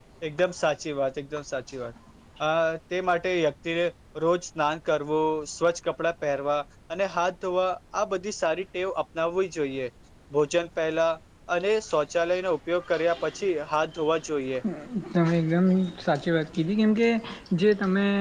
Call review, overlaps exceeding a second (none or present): none